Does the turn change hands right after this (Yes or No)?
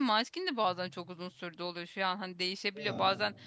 No